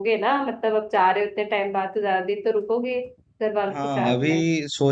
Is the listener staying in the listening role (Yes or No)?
No